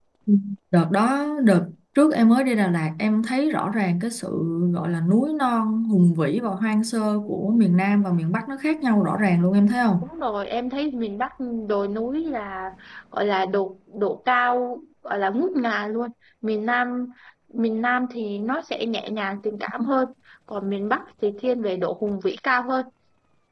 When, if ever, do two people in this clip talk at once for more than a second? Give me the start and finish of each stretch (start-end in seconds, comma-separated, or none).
none